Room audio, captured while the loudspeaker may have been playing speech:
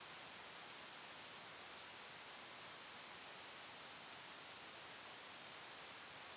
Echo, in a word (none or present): none